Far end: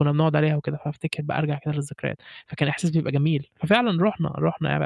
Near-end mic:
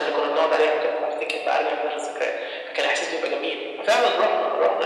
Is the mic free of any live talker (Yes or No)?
Yes